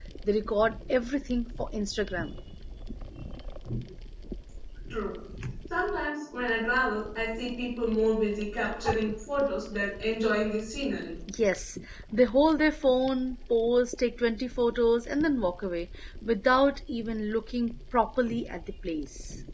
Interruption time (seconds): none

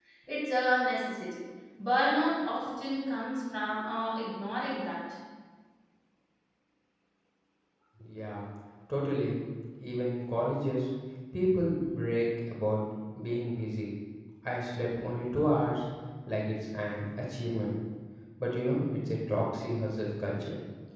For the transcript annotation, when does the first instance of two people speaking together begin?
none

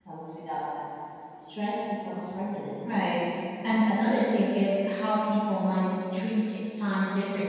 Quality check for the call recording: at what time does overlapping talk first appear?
none

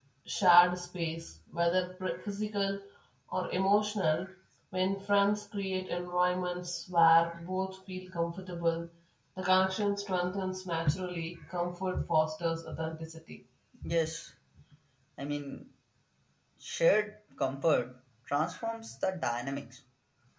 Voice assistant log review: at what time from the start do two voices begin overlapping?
none

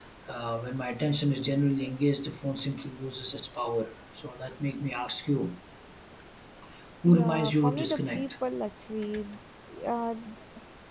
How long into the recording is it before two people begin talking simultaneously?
7 s

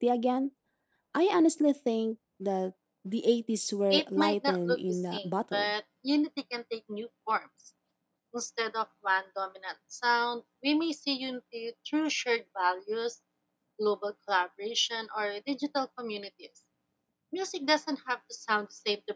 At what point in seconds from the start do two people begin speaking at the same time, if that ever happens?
4 s

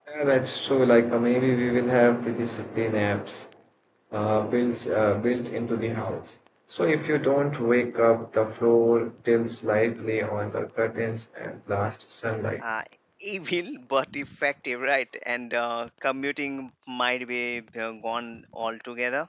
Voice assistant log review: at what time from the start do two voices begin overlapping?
none

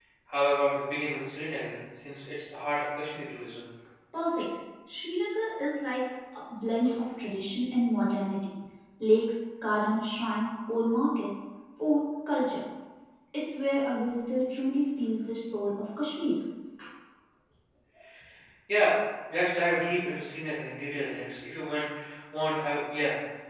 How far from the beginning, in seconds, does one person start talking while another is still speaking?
none

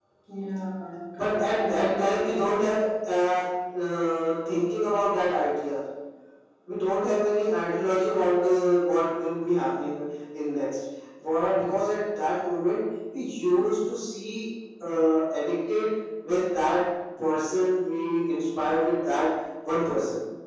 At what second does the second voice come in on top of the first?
1 s

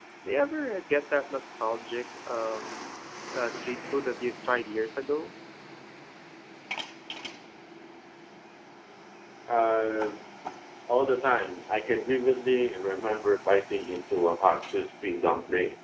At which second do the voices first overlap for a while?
none

